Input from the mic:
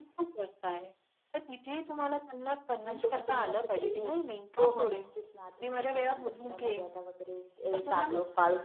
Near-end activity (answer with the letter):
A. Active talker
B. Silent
A